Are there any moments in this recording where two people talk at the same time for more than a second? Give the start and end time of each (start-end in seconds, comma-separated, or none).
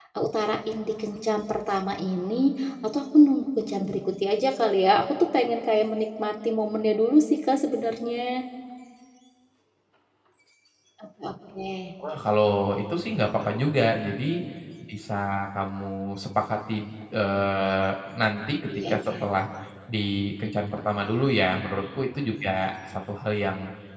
none